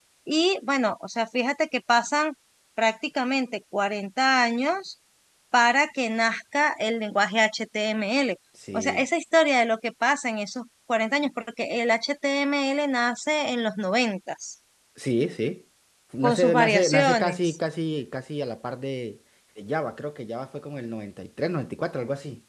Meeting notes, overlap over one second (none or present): present